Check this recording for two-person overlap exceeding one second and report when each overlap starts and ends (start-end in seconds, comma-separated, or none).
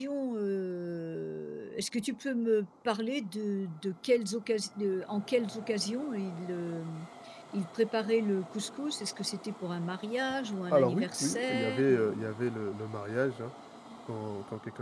10.7-12.3